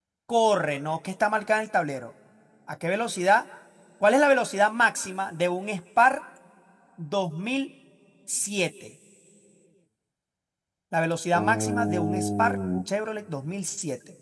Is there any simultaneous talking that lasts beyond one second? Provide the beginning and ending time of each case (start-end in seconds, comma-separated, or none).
11.3-12.6